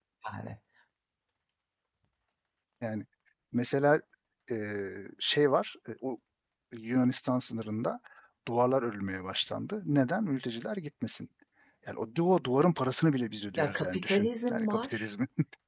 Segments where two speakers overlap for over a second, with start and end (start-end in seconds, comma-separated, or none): 13.6-15.1